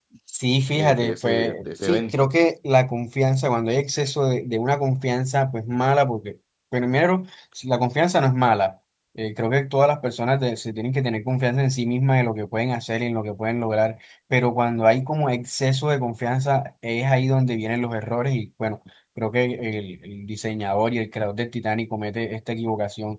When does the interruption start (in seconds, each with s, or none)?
0.8 s